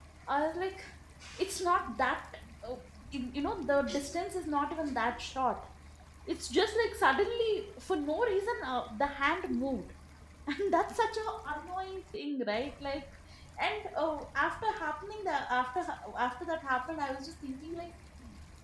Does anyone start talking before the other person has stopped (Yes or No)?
No